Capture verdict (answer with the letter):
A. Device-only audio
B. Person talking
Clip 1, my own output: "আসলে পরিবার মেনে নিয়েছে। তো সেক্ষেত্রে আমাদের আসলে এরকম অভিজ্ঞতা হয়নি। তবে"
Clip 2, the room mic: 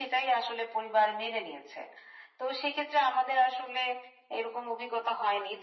A